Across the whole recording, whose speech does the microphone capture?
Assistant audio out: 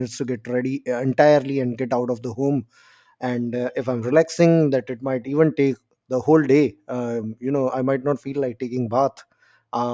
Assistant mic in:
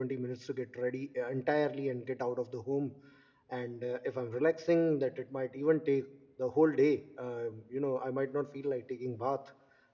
echo only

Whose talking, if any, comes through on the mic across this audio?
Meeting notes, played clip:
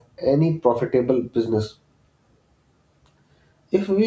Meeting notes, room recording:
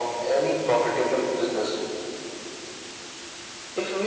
echo only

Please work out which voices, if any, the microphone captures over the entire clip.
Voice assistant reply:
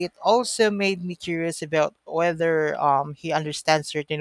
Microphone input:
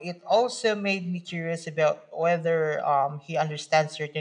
echo only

